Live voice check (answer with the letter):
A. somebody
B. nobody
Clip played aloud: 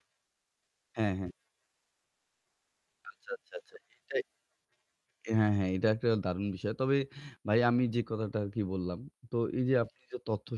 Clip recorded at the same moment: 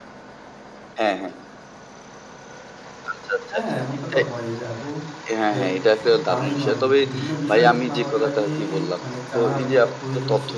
A